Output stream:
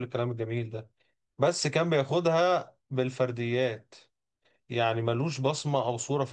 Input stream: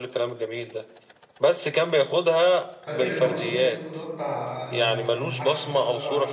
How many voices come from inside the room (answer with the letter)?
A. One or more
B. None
A